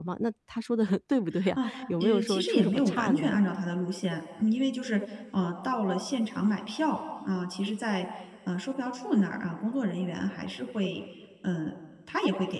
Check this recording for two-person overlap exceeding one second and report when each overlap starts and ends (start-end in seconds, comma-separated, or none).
2.0-3.4